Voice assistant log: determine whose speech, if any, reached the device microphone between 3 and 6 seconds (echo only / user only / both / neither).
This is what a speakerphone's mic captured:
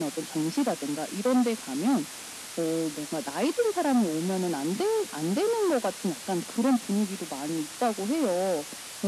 echo only